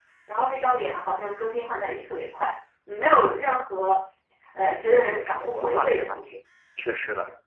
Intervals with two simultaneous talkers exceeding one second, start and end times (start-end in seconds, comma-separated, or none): 5.1-6.3